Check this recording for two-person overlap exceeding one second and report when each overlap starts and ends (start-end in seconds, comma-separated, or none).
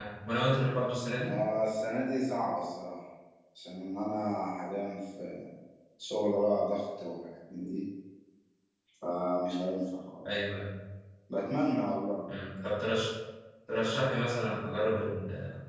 none